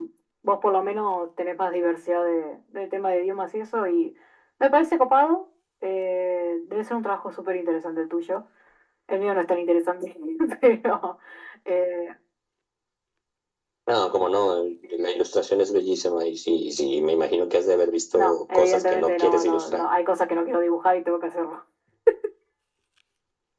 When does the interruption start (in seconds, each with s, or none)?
18.1 s